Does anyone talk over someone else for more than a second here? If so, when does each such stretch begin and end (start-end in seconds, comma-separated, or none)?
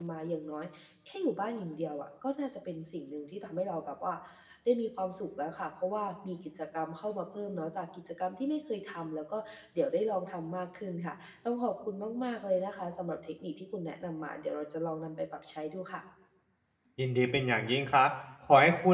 none